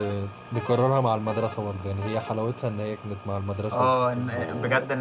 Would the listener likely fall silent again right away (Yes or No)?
No